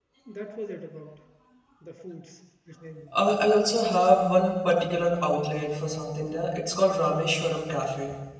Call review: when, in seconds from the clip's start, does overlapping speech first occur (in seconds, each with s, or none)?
none